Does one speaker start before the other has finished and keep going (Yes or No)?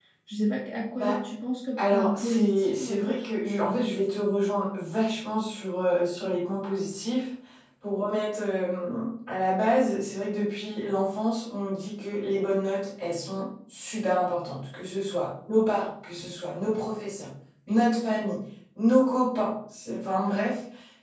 Yes